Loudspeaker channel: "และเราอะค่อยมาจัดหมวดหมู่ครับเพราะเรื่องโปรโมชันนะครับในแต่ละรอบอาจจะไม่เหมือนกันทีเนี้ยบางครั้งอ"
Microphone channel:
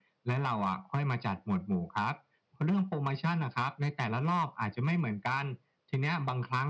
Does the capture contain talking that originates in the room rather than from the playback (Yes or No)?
No